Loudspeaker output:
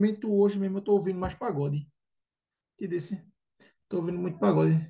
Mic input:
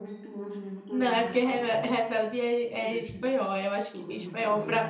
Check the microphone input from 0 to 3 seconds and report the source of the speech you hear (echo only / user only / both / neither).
both